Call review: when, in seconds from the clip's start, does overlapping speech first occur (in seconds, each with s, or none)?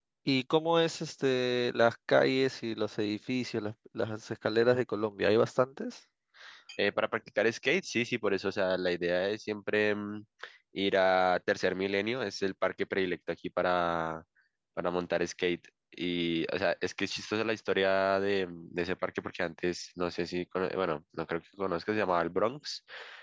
none